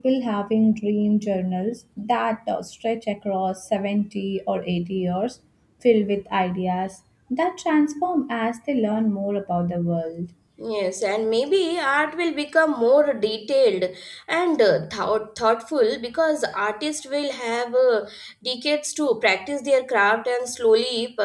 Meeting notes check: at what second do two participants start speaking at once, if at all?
none

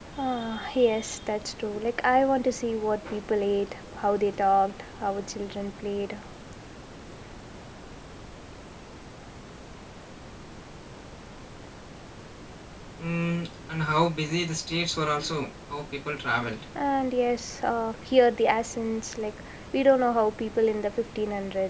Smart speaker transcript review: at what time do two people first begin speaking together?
none

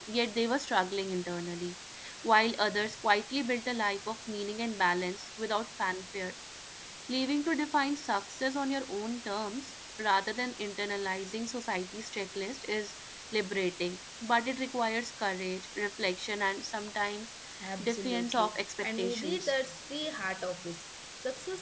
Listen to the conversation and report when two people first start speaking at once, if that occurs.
17.8 s

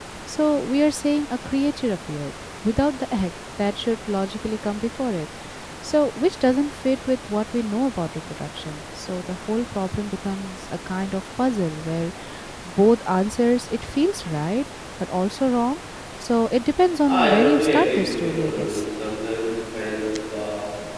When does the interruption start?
17.1 s

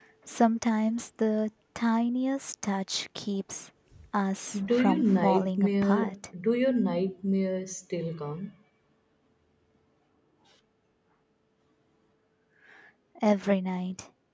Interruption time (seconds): 4.7 s

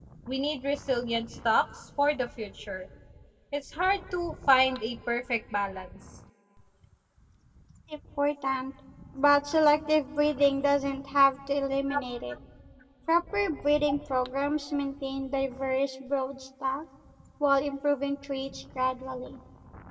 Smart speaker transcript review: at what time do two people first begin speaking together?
none

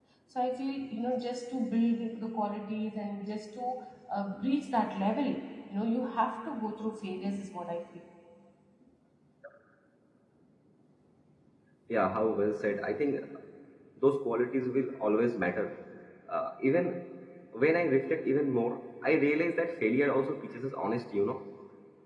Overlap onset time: none

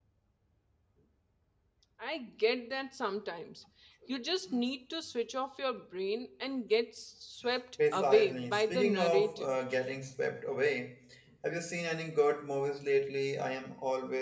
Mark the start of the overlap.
7.8 s

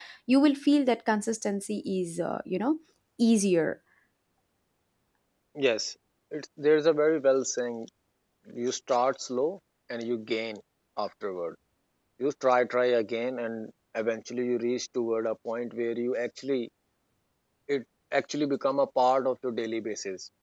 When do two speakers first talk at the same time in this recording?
none

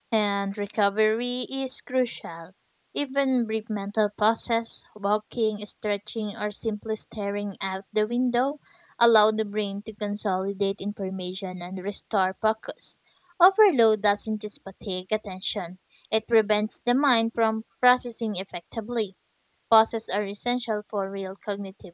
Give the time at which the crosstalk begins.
none

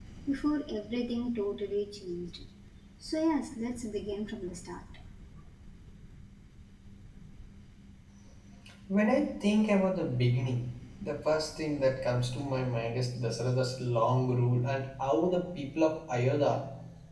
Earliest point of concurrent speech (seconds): none

